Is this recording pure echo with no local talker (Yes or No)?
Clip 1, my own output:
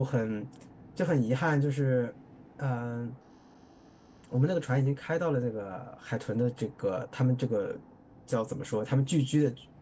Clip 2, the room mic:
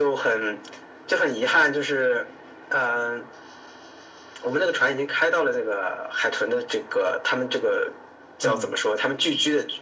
No